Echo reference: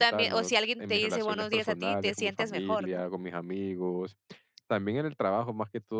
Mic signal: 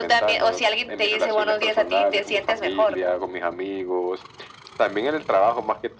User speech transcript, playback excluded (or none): none